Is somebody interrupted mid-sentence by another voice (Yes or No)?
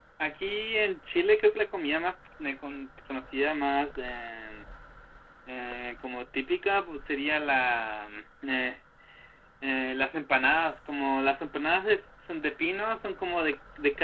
No